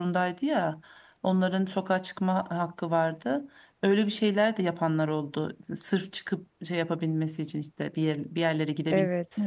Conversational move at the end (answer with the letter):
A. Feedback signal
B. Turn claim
B